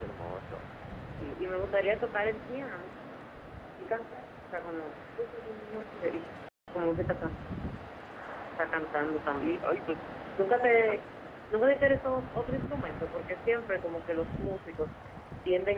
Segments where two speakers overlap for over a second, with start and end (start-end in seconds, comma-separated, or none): none